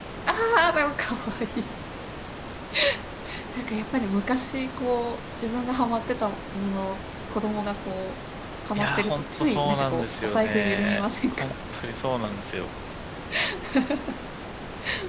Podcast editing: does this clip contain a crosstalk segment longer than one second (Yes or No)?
Yes